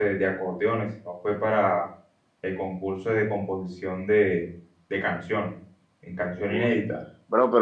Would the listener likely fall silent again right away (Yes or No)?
No